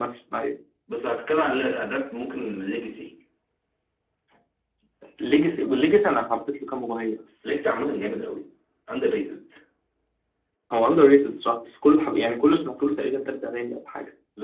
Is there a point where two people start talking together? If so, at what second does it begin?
none

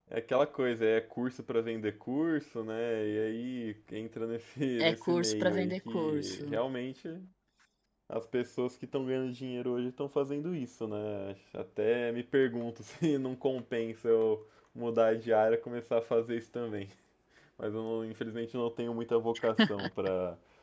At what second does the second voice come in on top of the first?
4.9 s

